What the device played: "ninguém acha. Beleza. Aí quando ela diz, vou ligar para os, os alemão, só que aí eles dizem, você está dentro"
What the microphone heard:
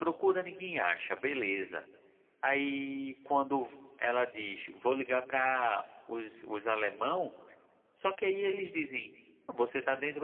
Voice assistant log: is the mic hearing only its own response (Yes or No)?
Yes